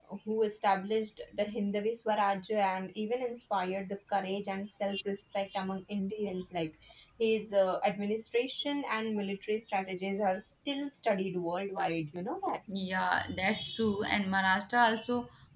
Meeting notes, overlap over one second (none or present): none